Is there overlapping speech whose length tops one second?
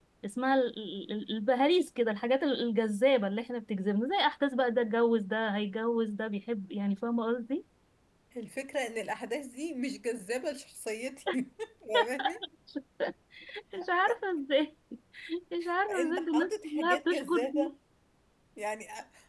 Yes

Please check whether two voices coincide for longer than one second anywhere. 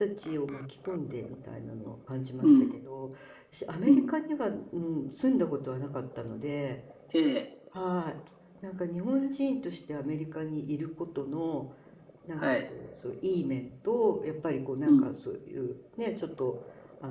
No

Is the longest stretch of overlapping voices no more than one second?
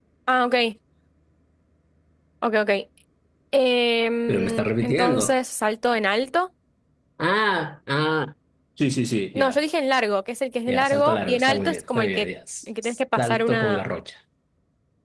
No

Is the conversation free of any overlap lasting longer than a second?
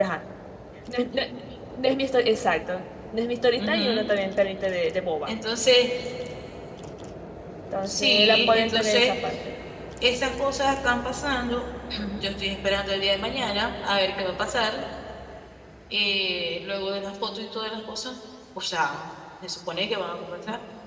No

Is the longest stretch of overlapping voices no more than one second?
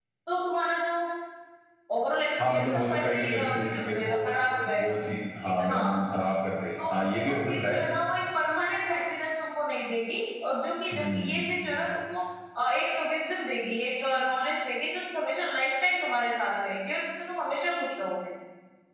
No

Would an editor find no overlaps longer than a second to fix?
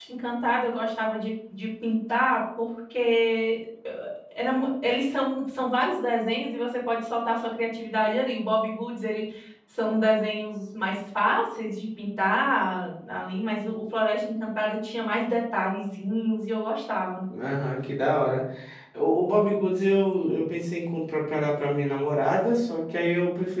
Yes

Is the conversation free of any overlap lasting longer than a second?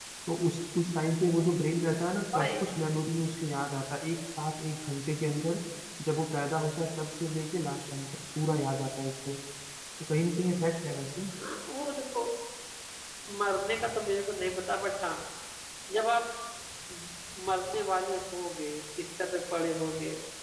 Yes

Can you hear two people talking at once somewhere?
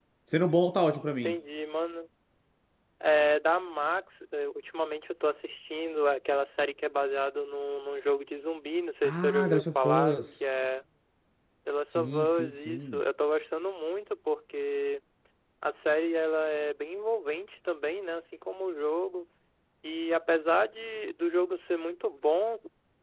Yes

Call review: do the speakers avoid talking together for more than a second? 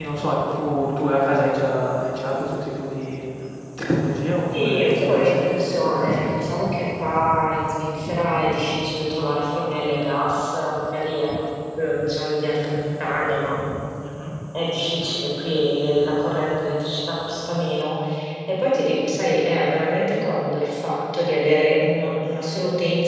No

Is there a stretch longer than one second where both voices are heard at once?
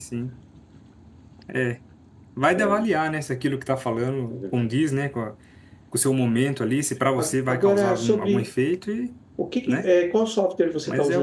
Yes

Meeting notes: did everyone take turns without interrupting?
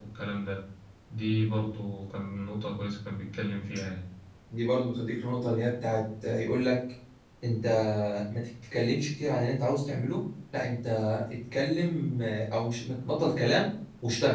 Yes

